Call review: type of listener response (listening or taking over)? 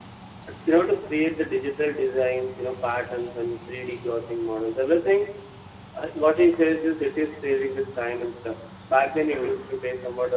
listening